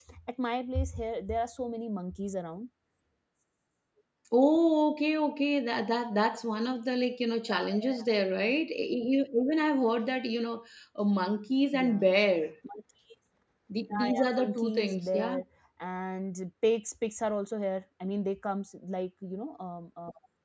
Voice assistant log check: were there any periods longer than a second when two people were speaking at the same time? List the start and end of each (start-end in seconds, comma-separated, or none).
13.9-15.4